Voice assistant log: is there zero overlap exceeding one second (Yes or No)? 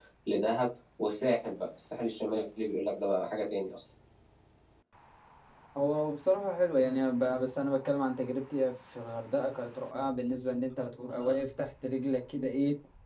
Yes